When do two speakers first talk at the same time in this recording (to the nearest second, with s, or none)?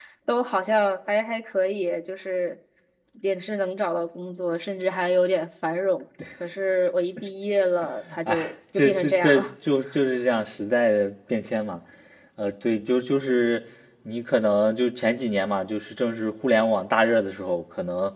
8 s